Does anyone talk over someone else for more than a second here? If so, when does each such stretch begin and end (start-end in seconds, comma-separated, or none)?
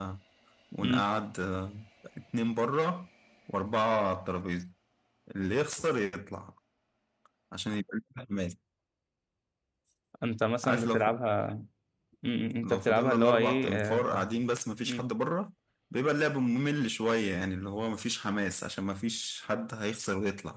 12.6-14.0